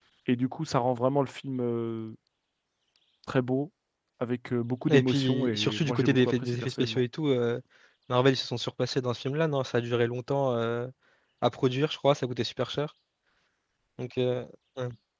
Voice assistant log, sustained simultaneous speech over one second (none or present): present